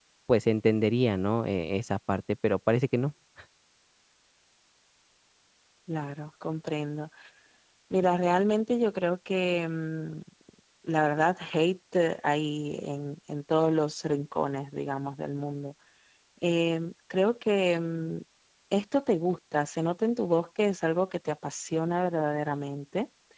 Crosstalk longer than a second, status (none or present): none